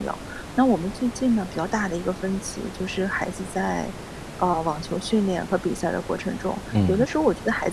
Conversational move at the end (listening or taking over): listening